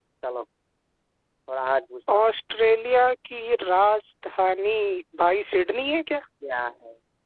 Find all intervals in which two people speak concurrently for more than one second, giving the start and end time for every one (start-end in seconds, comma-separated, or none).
none